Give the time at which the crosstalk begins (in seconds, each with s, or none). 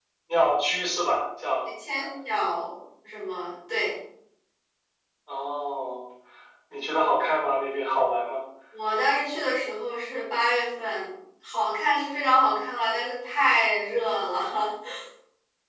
none